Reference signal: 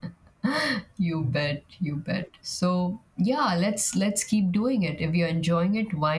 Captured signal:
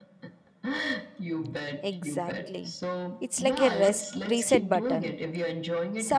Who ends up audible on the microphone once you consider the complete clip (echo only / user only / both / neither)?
both